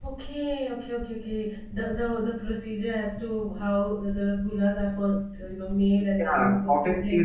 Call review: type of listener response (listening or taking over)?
taking over